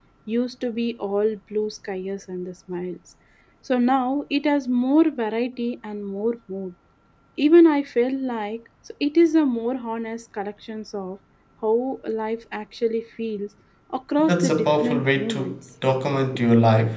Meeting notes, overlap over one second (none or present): present